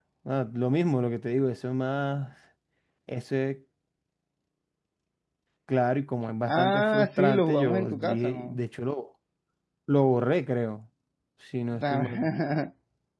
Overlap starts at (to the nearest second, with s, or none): 6 s